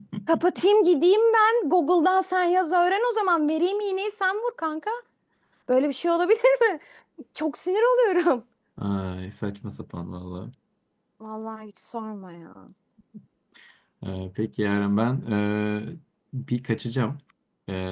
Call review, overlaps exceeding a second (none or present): none